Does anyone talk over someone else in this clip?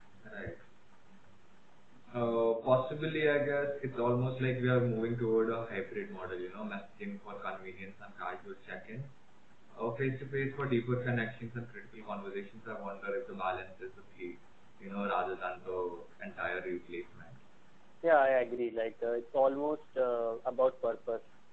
No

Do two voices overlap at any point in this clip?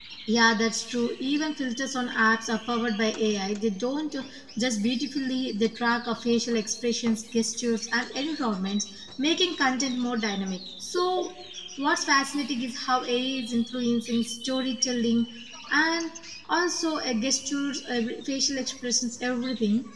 No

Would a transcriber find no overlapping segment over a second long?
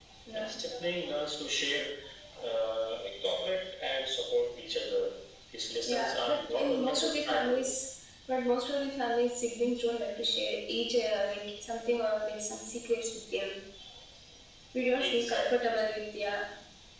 No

